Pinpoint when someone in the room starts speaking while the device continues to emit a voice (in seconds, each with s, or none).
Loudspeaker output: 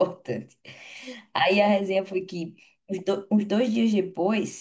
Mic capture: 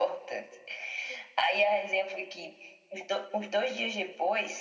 none